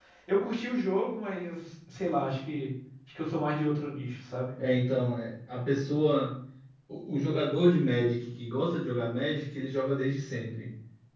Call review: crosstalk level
none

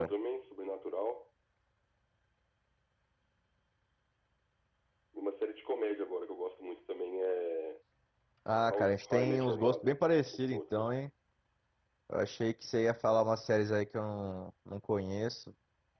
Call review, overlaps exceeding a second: present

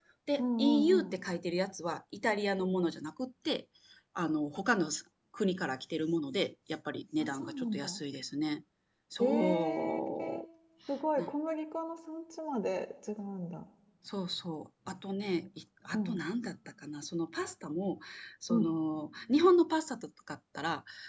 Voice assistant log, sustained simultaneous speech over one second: present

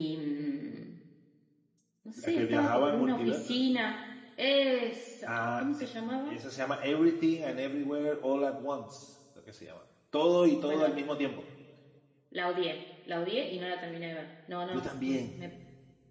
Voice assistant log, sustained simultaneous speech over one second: present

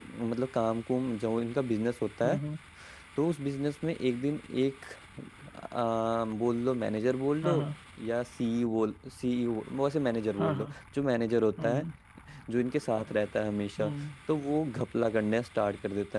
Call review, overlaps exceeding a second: none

